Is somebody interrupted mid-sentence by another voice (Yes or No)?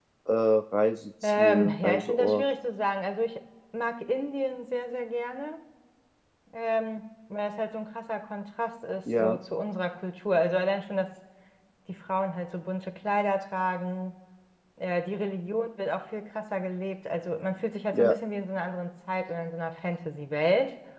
Yes